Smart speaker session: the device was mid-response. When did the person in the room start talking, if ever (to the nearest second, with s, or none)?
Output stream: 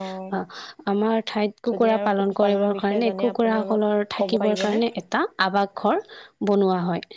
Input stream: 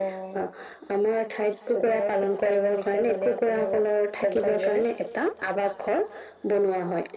none